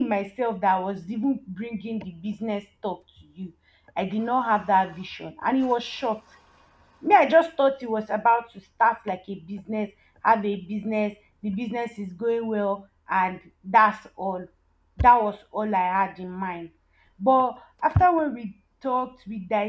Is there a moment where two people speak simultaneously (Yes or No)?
No